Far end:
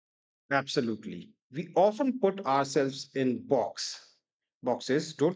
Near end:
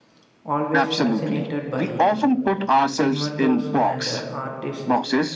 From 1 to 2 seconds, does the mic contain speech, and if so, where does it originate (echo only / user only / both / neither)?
both